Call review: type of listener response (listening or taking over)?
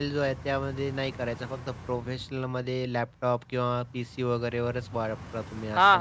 taking over